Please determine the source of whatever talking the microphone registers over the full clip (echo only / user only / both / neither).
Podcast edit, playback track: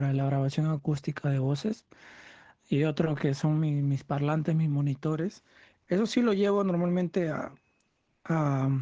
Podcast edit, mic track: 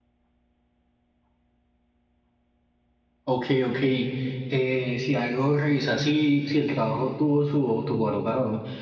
user only